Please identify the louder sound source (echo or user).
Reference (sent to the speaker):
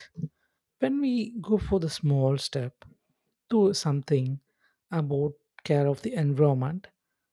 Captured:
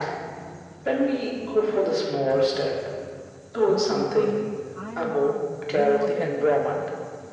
echo